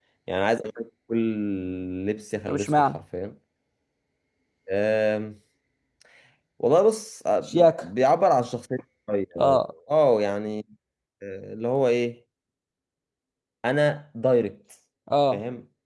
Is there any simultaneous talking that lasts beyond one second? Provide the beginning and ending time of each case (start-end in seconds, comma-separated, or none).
none